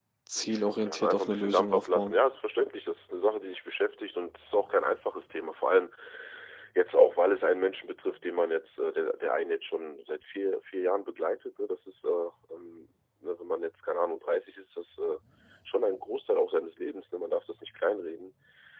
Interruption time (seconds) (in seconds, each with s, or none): 0.6 s